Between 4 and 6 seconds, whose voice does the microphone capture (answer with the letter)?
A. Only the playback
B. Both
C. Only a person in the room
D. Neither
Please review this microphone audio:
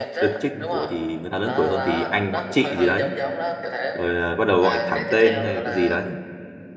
B